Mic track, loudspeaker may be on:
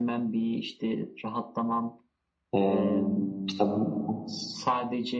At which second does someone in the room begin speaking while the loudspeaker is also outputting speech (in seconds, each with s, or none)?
2.5 s